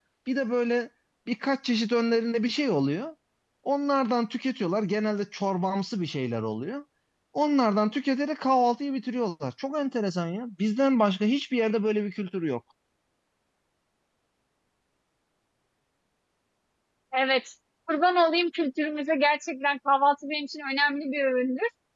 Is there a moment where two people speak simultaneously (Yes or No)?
No